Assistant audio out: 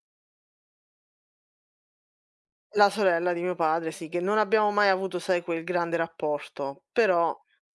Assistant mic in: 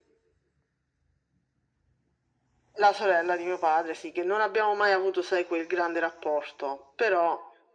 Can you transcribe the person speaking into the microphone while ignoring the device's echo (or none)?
none